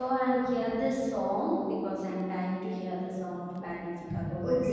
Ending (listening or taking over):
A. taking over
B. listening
A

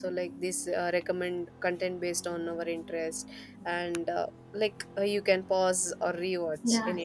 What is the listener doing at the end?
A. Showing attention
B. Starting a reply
B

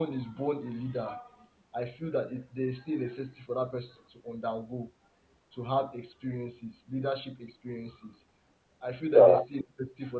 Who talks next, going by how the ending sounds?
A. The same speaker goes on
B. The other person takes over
A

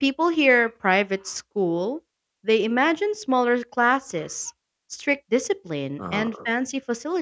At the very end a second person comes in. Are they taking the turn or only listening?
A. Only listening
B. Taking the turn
A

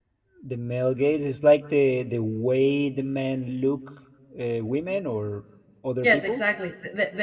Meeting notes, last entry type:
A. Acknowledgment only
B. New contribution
B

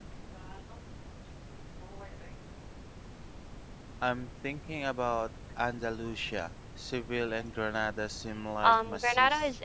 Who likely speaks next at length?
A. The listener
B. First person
A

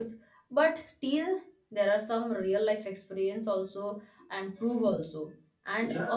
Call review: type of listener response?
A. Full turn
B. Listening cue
A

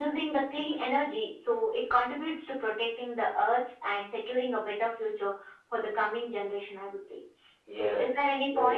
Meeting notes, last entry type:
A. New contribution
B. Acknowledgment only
A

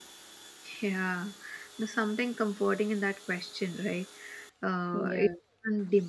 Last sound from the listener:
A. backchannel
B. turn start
A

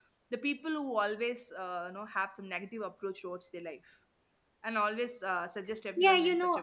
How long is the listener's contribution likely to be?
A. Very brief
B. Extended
B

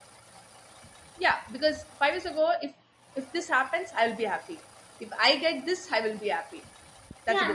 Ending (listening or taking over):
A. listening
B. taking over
B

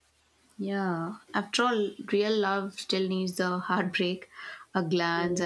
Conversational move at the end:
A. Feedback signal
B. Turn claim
A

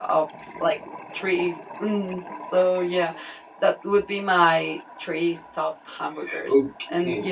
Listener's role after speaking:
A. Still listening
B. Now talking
B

